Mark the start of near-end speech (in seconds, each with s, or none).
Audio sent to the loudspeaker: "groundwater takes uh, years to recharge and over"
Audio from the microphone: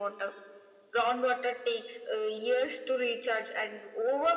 none